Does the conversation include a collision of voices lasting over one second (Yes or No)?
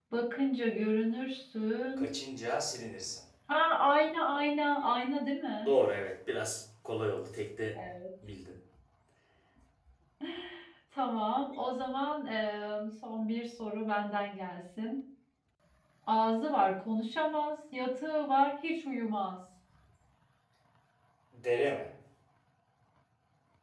No